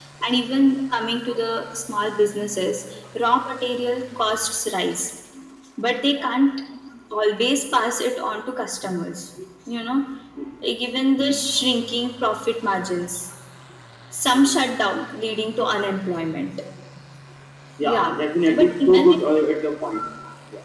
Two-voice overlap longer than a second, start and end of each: 17.8-19.2

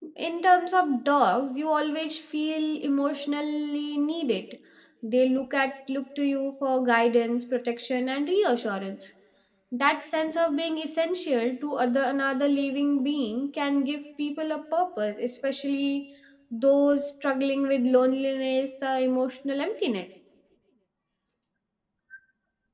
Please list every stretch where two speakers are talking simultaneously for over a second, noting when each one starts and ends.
none

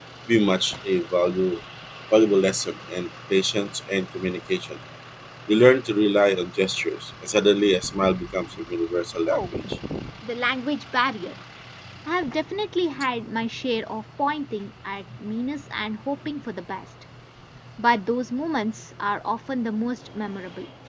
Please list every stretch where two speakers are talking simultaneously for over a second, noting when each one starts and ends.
none

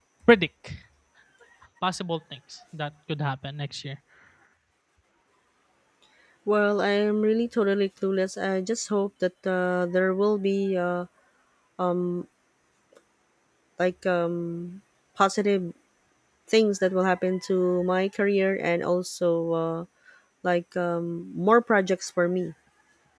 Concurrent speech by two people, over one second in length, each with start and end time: none

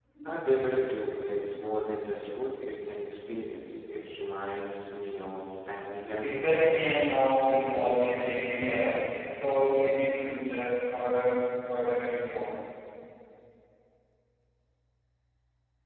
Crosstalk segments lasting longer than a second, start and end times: none

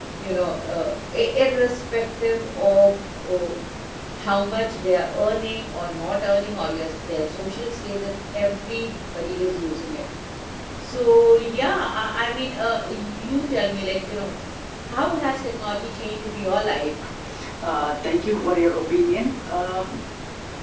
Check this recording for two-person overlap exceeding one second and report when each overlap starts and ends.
none

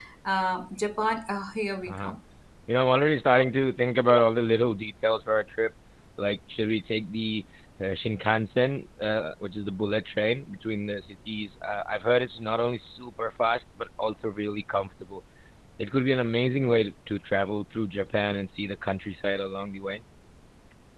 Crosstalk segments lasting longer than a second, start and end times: none

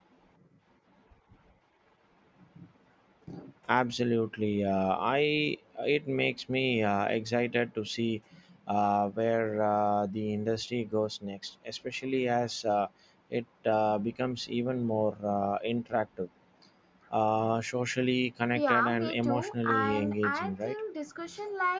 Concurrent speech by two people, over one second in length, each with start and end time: 18.6-20.8

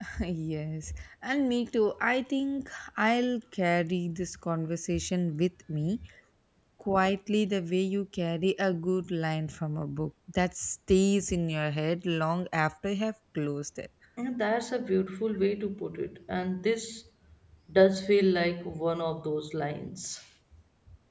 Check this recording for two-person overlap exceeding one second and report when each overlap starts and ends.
none

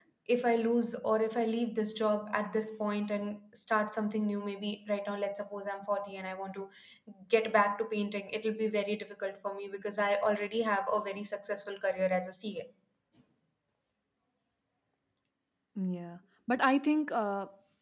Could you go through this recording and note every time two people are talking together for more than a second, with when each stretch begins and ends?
none

